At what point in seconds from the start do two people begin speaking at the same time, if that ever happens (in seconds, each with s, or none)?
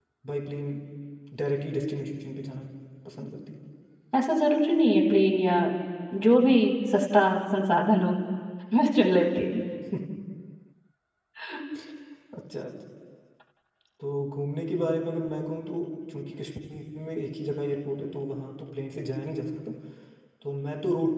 none